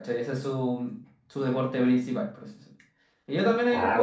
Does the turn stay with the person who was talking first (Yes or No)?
Yes